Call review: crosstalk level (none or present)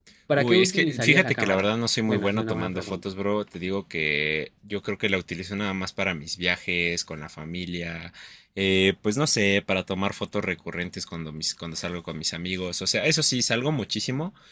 present